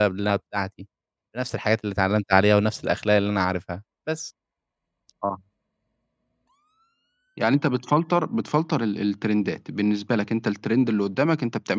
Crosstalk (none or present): none